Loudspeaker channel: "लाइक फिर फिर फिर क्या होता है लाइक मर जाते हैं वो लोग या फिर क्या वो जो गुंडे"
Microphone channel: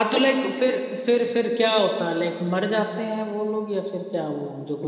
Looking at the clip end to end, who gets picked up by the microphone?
echo only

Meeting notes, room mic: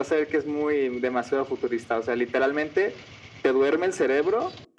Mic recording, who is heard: echo only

